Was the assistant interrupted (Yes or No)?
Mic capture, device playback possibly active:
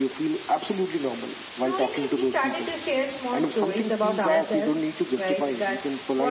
Yes